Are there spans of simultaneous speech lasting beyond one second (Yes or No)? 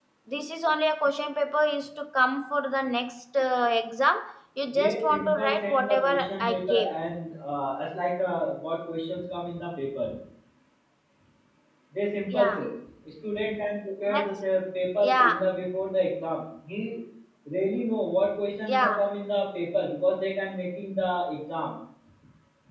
Yes